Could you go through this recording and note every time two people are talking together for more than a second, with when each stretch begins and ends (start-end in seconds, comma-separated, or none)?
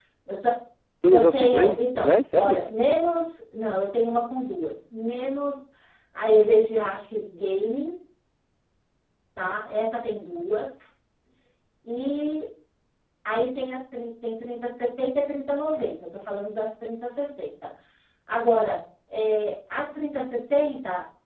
1.1-2.6